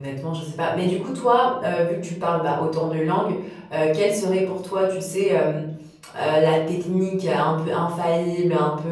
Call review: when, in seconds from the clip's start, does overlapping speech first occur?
none

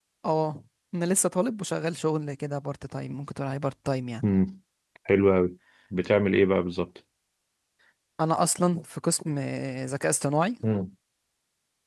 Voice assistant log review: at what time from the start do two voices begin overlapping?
none

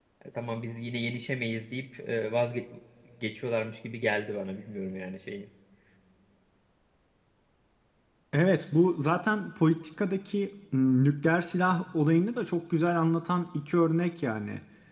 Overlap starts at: none

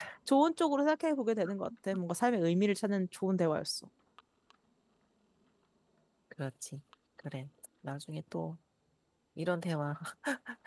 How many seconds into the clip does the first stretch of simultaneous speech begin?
none

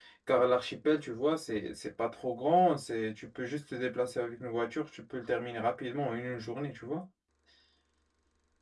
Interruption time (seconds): none

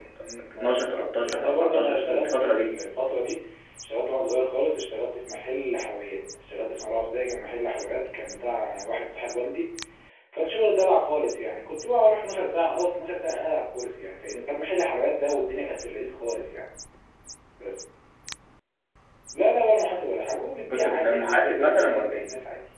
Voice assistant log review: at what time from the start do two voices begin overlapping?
0.5 s

